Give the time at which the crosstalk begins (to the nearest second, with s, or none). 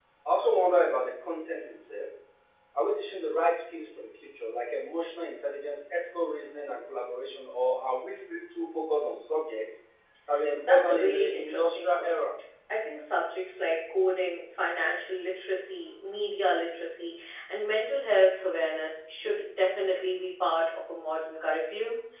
11 s